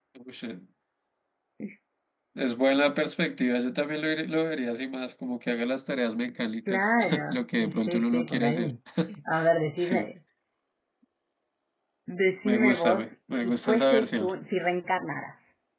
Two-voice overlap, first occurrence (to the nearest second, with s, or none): 7 s